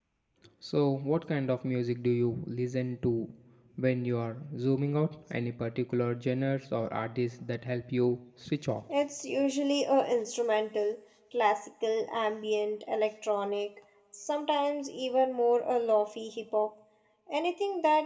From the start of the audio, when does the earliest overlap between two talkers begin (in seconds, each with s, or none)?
none